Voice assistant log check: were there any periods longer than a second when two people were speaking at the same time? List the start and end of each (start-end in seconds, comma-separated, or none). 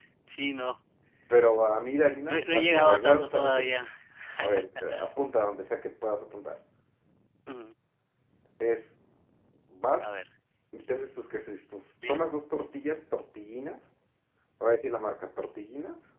2.3-3.8